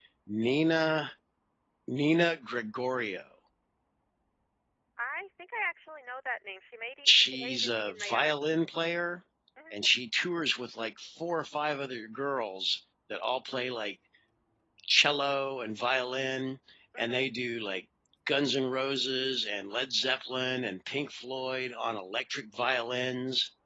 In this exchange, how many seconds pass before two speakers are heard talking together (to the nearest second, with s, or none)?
7 s